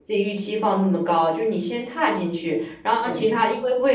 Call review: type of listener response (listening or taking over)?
listening